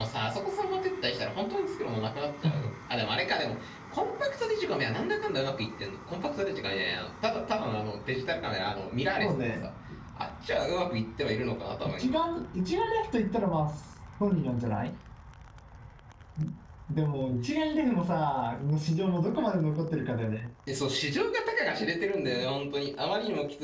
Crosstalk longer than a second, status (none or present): none